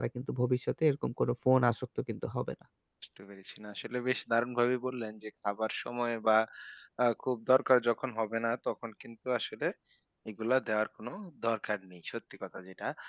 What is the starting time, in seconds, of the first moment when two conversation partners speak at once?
none

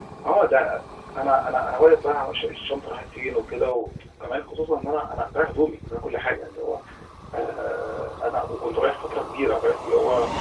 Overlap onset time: none

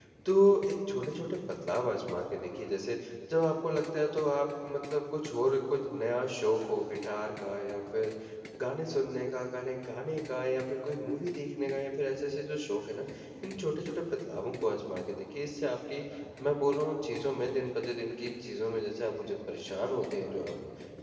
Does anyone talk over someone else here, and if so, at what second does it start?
none

